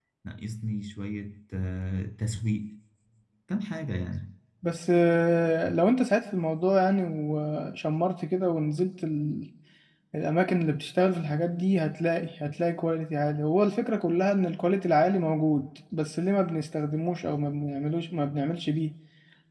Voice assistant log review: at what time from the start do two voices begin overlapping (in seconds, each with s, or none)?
none